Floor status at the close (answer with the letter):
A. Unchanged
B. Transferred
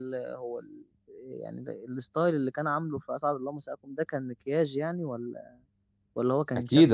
B